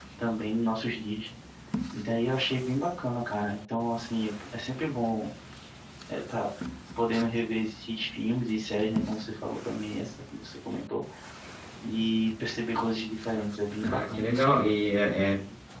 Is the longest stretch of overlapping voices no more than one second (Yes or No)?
Yes